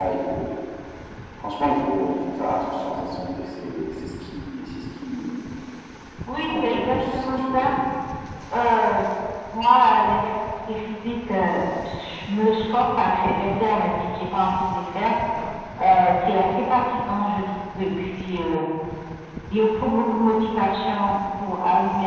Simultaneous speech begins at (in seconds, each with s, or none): 6.5 s